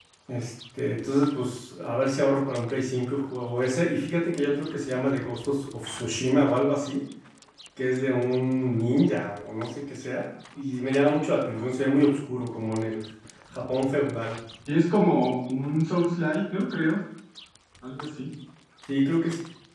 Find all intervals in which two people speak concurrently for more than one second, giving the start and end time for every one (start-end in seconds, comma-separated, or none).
none